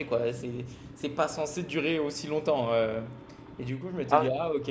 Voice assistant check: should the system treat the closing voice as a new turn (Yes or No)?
No